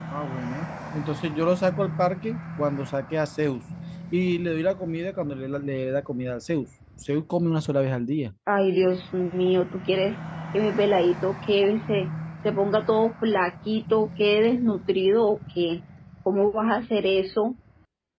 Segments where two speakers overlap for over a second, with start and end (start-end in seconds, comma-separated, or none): none